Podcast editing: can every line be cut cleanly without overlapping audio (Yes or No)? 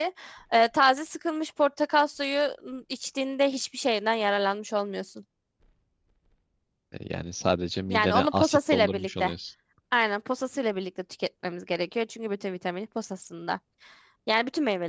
No